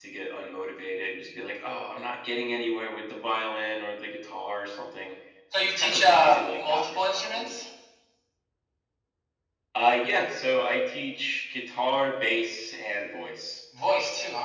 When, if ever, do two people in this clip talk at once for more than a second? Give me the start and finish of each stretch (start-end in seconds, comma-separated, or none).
5.6-7.6